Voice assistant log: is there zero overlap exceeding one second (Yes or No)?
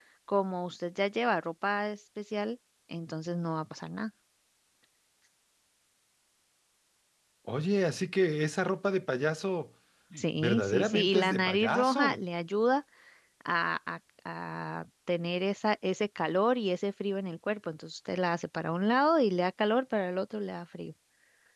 No